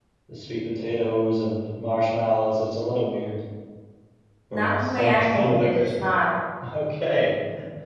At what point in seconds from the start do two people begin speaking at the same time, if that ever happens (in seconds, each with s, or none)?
4.5 s